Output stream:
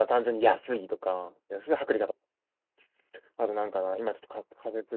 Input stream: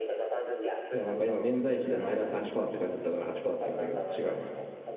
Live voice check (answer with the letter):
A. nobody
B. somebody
B